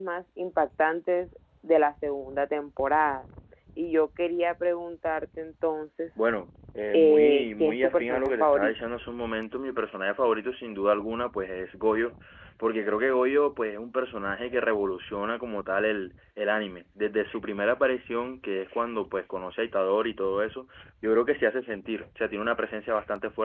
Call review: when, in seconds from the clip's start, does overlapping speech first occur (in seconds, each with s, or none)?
6.9 s